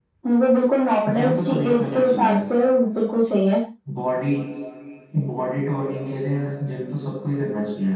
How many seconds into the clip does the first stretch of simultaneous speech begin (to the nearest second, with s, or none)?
1 s